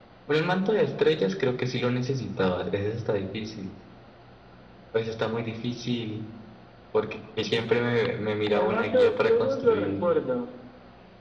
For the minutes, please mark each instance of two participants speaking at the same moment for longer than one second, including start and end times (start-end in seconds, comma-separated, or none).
8.6-10.1